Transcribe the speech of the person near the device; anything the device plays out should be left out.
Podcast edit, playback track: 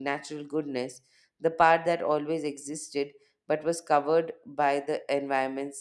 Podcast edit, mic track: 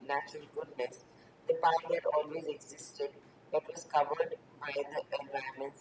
none

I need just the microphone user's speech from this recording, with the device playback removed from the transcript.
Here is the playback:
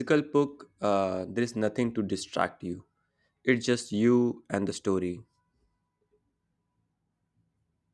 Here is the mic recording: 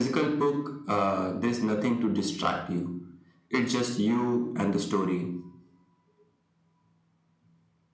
none

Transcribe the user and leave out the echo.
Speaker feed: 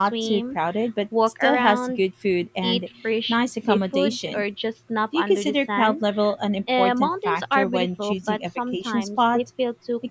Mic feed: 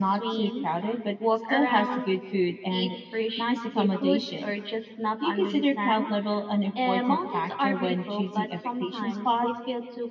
none

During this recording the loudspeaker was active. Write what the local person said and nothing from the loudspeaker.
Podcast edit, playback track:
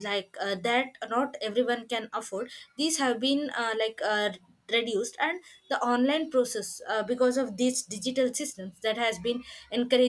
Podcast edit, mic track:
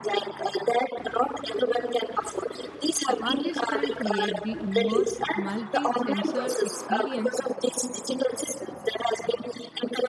the artist can create the immersive, multi sensor experience

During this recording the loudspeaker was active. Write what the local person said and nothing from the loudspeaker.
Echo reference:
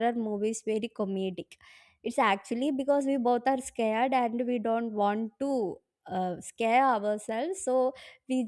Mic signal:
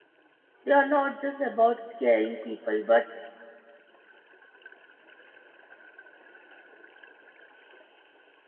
they are not just about scaring people but

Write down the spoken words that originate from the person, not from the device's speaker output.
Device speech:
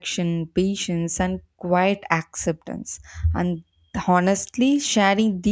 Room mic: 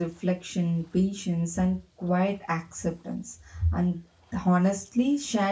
none

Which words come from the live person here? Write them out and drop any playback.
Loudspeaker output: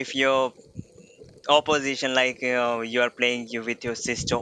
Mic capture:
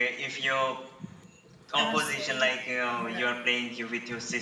MS Dhoni and Virat Kohli.

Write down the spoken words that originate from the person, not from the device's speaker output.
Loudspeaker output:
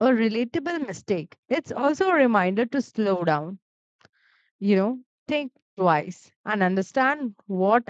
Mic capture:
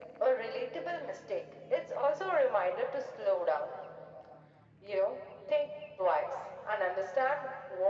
none

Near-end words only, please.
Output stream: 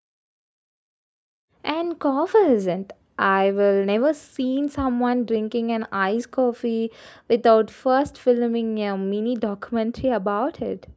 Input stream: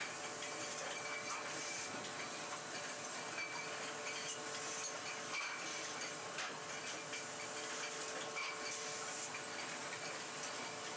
none

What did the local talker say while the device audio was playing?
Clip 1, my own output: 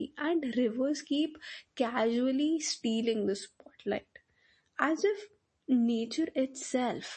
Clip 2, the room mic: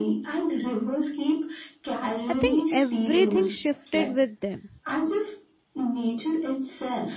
i think everything shifted with them

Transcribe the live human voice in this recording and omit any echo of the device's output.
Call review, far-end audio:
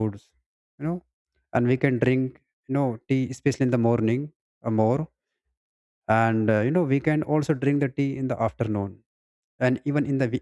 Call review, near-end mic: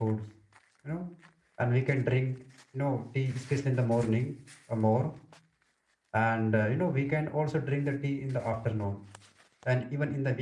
none

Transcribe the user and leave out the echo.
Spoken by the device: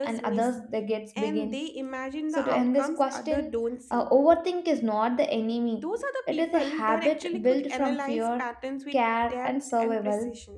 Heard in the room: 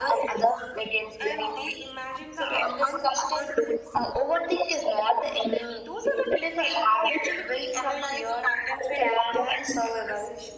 none

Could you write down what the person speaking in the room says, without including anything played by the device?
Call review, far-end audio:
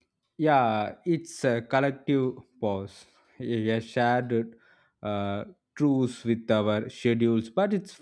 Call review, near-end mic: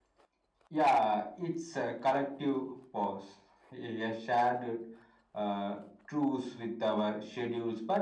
none

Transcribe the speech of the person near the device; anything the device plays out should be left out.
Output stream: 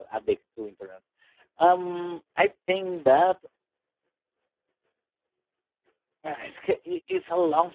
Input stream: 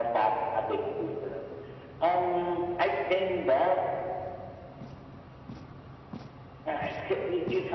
none

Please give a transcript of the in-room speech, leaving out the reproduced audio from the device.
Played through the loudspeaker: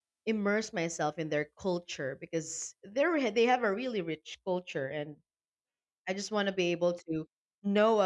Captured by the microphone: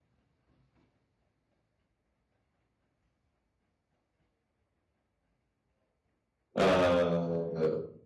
uh

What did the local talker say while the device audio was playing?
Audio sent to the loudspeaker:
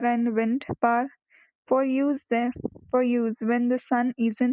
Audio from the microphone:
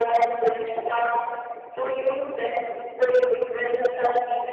none

